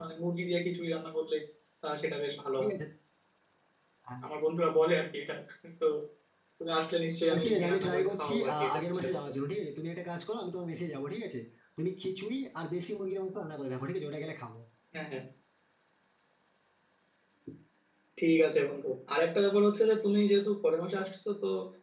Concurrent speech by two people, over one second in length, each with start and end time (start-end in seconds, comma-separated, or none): 7.3-9.2